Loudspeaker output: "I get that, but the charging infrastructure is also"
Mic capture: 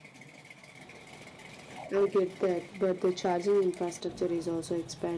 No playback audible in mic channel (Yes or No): No